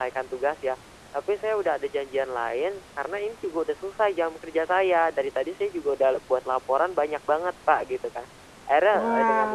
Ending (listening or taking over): listening